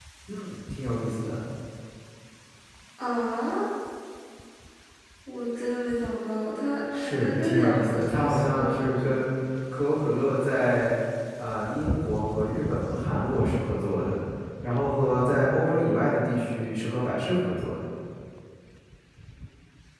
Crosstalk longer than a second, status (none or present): present